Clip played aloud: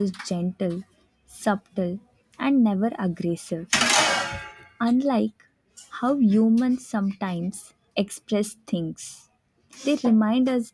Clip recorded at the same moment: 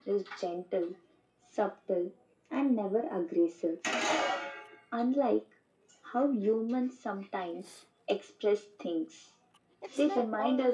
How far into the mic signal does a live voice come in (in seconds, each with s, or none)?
9.8 s